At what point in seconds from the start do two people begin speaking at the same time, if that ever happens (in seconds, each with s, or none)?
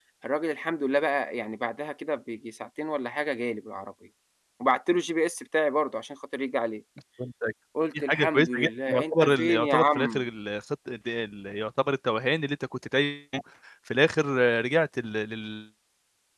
8.0 s